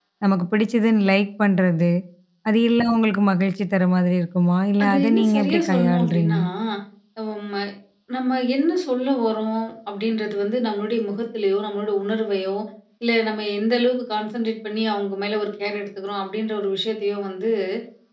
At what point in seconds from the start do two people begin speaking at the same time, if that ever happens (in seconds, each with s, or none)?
4.8 s